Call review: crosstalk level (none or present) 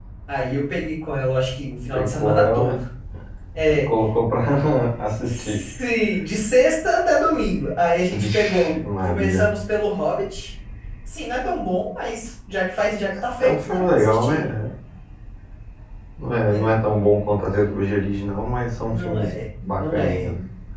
present